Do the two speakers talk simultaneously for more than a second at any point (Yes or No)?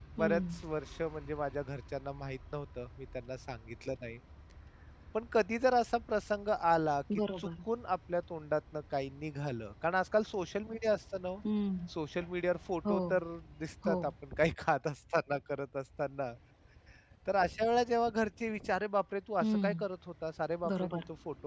No